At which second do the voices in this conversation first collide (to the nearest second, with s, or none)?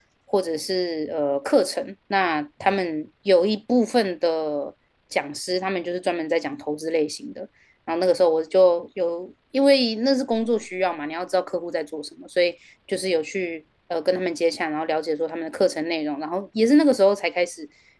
none